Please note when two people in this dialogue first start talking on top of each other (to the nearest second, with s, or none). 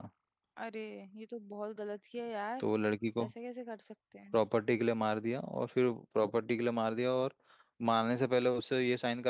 none